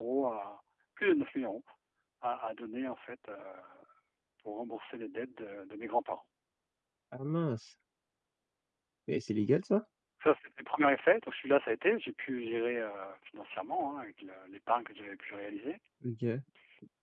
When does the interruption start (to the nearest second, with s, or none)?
none